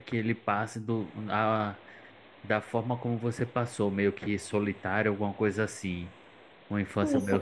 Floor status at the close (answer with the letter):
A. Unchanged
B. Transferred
B